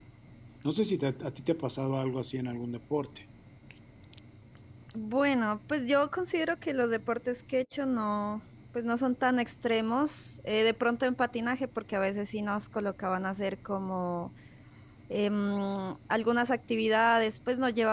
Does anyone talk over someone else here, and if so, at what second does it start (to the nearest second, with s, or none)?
none